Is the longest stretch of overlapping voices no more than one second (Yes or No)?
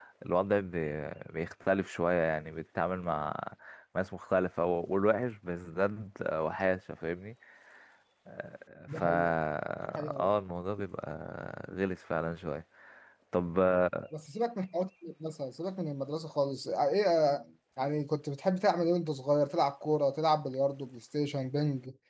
Yes